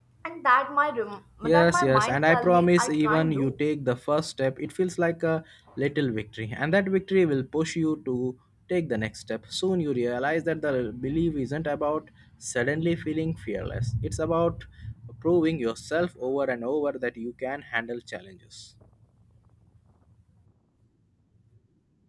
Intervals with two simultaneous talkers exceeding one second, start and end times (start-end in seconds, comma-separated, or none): 1.4-3.6